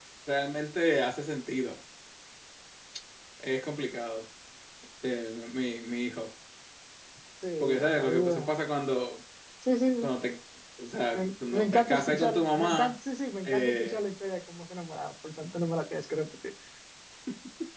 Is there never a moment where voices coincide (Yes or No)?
No